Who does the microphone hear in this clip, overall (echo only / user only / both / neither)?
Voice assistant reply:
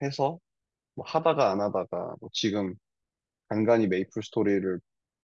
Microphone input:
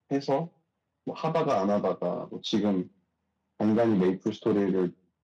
echo only